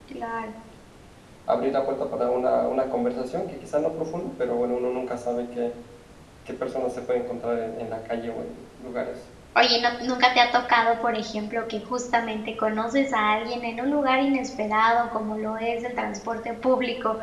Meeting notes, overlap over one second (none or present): none